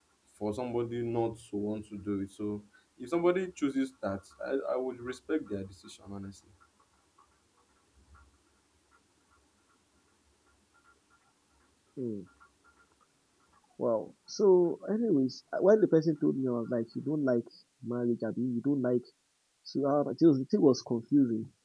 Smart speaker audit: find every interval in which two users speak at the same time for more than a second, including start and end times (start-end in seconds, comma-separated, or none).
none